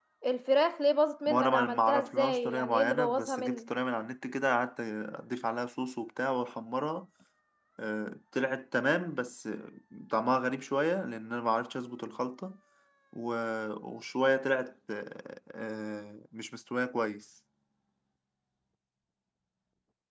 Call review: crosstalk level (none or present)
present